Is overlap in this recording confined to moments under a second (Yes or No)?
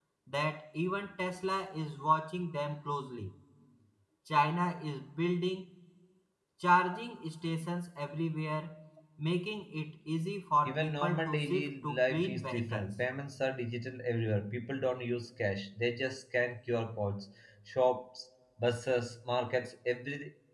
No